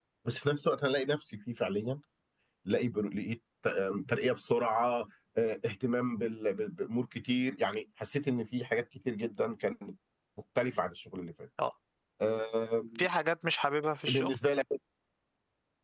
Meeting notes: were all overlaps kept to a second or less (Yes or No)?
Yes